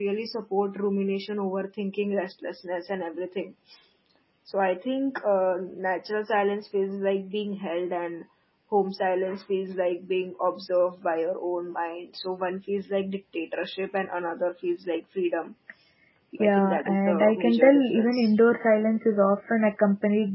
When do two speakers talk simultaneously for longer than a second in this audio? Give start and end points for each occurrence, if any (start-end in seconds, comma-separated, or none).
16.4-18.3